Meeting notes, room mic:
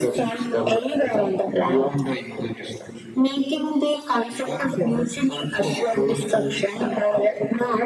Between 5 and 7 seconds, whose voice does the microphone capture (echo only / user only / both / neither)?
echo only